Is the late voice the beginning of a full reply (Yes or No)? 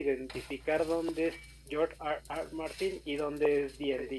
No